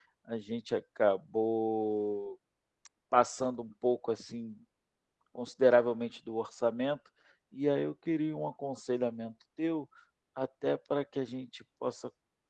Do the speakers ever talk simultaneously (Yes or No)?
No